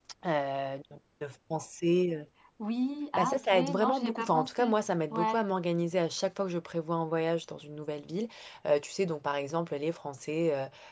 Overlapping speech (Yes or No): Yes